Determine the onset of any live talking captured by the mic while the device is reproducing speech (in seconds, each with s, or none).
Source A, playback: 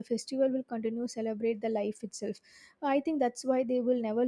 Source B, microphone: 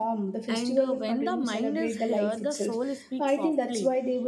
0.5 s